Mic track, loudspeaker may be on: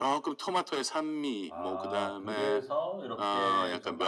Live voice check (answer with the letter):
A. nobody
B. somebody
B